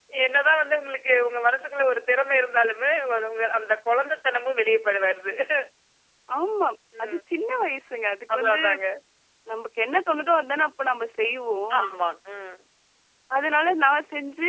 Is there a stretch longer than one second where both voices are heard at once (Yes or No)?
No